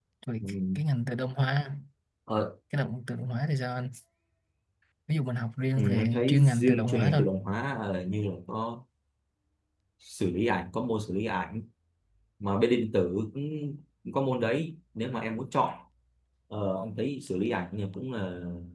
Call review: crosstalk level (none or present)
present